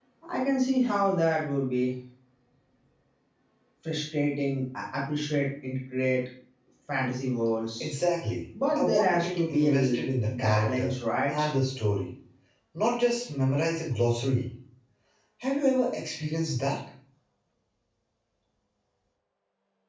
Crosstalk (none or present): present